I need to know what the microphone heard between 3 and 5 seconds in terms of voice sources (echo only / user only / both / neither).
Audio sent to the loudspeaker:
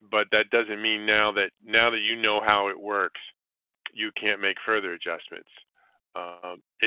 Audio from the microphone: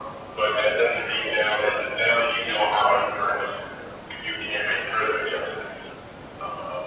echo only